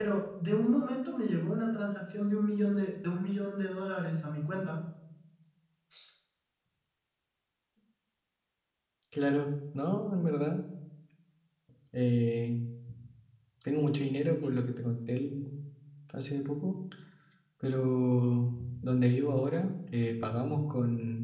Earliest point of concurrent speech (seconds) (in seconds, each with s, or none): none